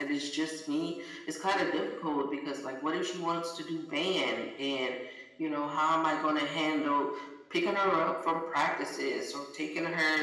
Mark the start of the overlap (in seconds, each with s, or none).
none